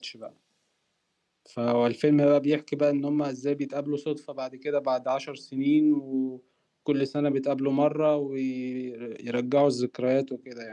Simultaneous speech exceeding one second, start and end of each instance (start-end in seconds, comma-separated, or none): none